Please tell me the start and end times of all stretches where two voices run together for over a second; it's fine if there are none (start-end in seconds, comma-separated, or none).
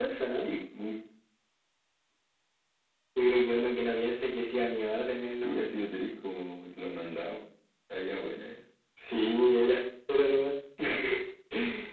none